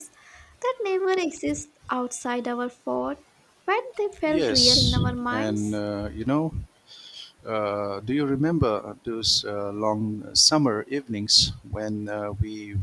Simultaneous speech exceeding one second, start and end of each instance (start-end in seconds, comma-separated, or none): 4.3-5.7